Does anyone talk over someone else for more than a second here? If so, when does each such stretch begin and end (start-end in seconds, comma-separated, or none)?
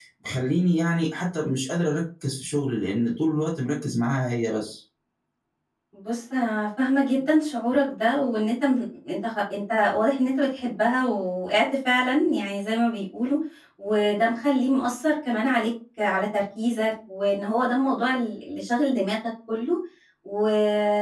none